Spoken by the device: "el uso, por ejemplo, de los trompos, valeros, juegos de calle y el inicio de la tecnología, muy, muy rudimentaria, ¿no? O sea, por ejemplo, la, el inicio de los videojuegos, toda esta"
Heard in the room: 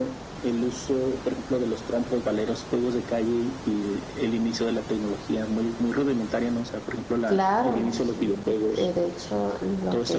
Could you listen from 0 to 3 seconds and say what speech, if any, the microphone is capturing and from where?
echo only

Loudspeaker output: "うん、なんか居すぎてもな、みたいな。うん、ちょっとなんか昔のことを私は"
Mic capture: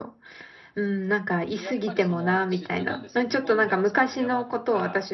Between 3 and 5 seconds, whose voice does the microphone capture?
both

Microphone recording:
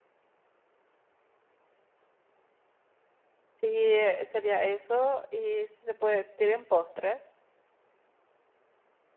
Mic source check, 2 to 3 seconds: neither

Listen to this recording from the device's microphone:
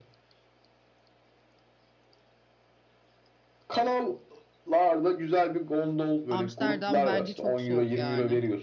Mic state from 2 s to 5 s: echo only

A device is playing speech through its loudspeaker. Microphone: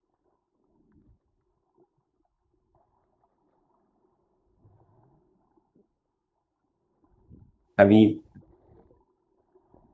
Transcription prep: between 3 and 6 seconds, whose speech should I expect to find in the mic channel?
neither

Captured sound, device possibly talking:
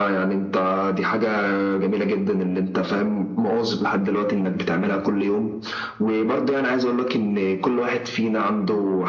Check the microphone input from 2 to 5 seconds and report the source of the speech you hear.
echo only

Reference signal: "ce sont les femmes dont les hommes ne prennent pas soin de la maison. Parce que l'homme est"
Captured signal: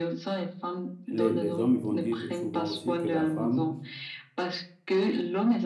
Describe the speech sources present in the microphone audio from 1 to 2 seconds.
both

